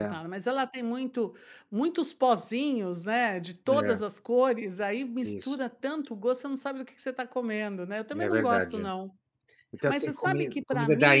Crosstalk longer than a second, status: present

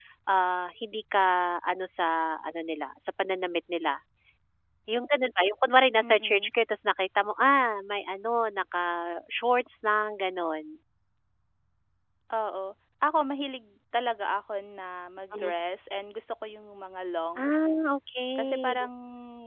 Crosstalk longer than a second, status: none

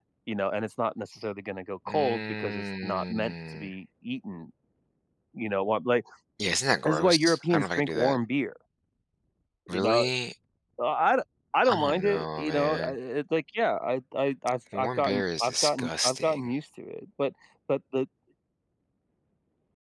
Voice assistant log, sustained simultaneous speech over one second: present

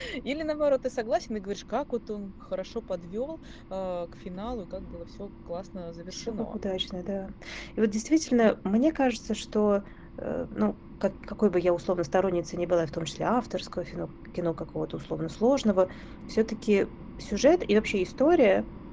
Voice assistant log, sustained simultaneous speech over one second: none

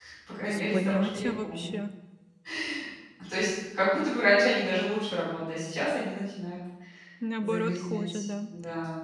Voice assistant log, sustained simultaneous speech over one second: present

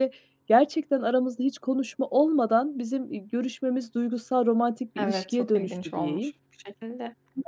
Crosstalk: present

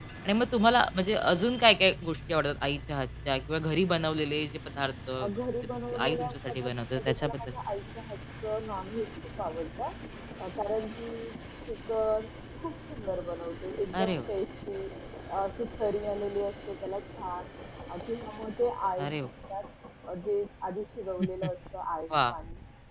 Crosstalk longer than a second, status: present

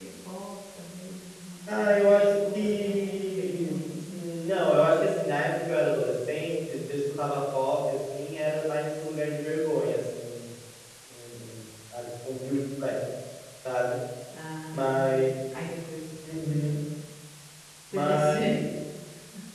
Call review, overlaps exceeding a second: present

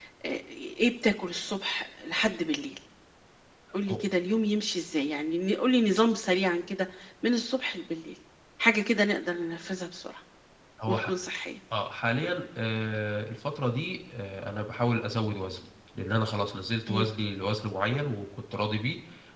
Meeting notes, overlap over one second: none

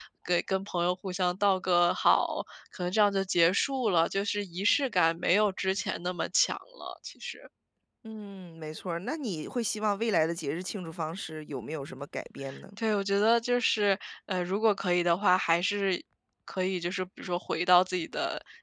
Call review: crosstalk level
none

